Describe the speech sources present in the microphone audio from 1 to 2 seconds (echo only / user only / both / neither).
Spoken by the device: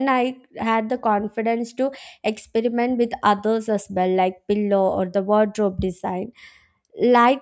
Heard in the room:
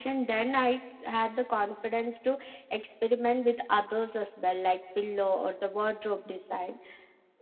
echo only